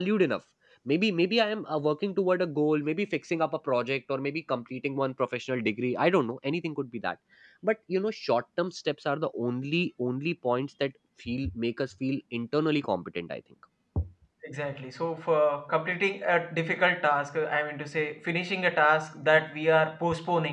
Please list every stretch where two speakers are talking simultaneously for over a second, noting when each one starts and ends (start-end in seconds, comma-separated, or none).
none